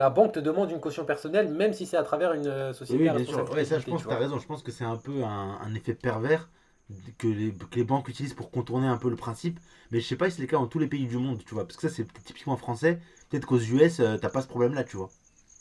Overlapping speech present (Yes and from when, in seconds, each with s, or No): Yes, from 2.9 s